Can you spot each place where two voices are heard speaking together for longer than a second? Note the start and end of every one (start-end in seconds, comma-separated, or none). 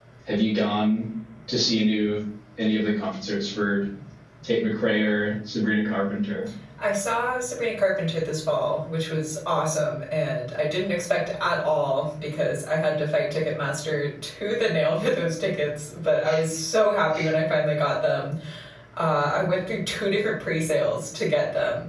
none